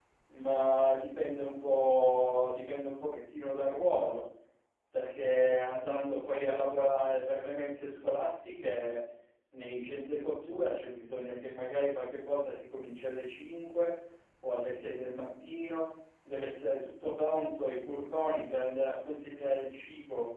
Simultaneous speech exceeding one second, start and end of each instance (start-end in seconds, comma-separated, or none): none